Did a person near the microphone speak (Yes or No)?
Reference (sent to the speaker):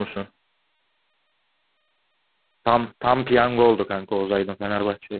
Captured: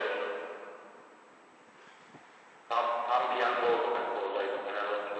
No